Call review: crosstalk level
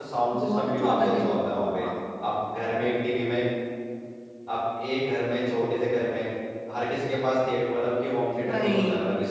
present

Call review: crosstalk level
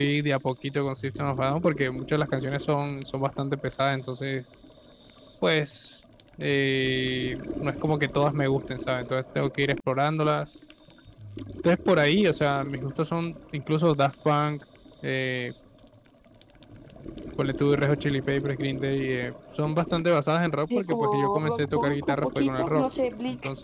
present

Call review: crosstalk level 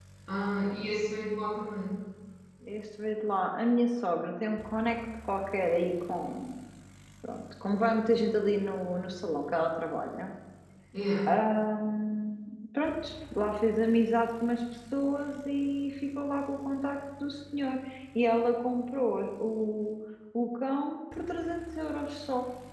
none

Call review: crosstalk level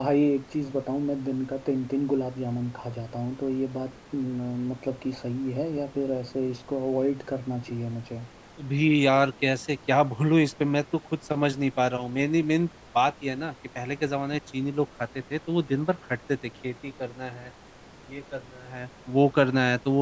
none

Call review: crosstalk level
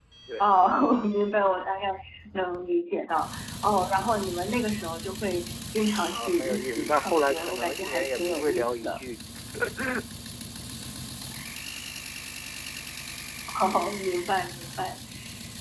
present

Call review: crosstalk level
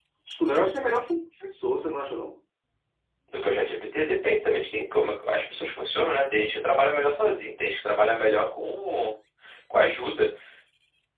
none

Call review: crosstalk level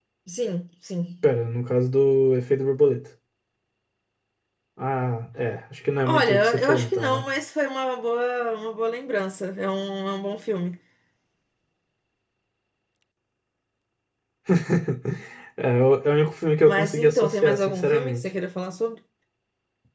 present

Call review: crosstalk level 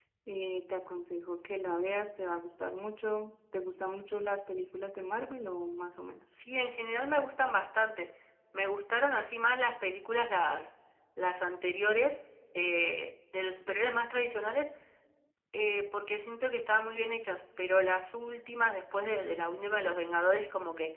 none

